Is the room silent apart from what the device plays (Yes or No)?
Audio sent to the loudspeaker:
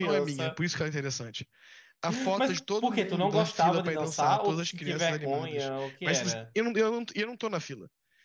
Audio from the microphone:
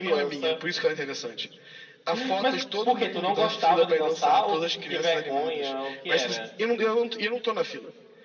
Yes